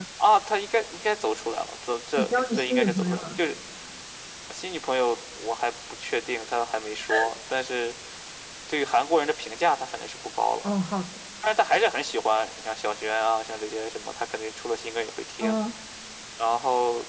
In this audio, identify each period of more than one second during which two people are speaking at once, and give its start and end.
2.2-3.4

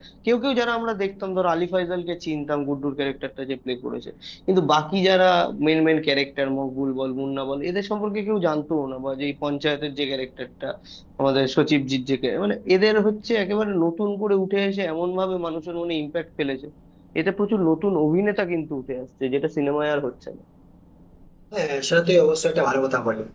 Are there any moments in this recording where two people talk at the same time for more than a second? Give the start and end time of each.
none

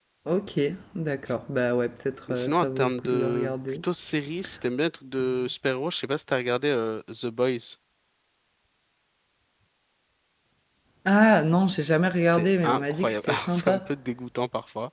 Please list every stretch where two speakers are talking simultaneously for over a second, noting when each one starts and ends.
2.3-3.5, 12.2-13.8

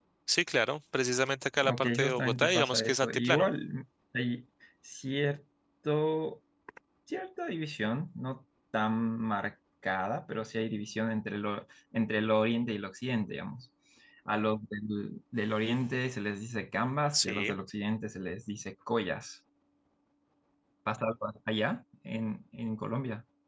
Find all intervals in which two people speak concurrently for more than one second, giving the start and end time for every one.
1.6-3.5

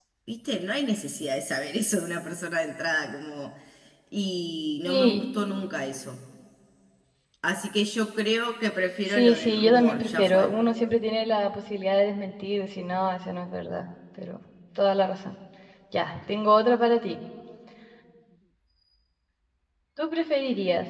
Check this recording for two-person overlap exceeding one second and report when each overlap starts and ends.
9.1-10.5

